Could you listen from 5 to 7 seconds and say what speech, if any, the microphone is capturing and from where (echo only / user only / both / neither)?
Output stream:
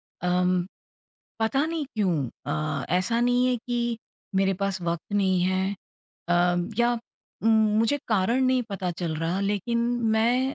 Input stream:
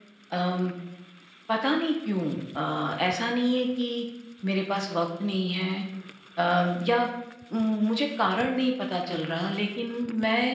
echo only